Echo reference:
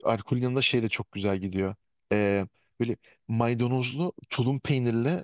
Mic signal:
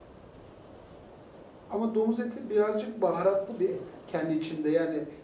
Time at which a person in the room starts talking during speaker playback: 1.7 s

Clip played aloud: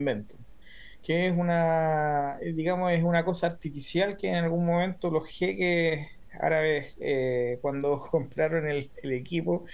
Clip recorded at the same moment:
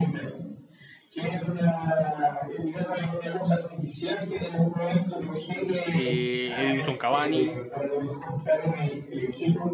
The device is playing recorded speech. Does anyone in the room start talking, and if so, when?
5.9 s

